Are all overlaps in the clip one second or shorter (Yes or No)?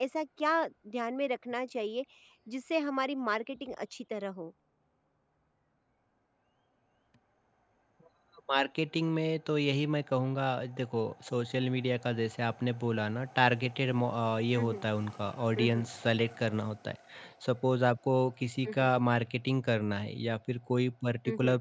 Yes